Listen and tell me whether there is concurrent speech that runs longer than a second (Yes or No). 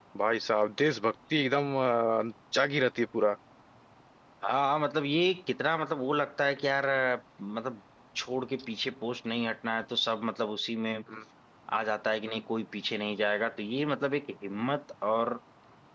No